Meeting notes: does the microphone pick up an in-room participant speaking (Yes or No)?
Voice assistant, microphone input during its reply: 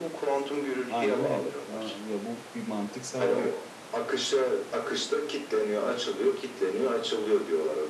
Yes